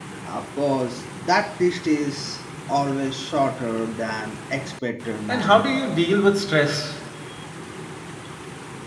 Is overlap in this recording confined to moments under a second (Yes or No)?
Yes